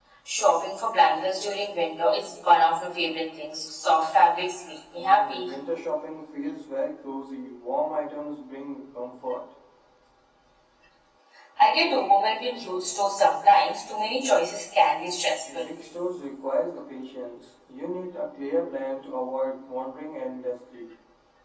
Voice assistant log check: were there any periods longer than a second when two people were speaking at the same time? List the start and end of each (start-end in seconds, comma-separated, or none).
none